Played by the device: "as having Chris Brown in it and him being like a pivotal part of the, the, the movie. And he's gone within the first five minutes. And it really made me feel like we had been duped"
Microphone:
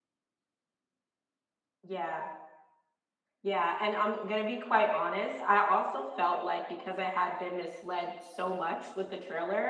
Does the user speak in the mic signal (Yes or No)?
Yes